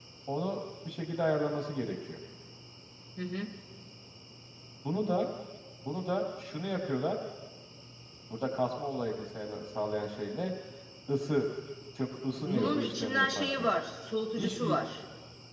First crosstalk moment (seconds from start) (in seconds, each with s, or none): 12.4 s